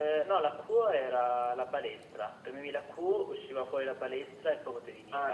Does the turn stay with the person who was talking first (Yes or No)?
No